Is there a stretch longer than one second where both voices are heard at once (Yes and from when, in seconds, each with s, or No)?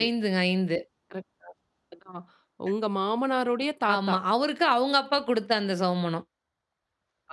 No